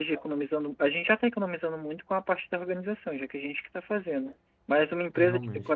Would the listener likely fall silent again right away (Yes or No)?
Yes